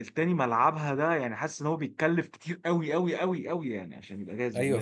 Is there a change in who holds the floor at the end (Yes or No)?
Yes